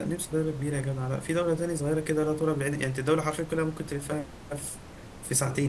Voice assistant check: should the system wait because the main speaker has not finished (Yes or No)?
Yes